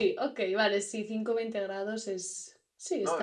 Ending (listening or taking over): taking over